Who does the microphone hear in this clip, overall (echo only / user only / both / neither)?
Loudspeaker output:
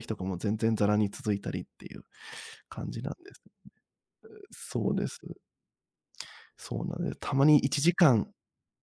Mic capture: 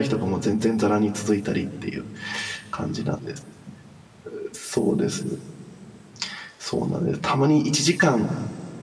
echo only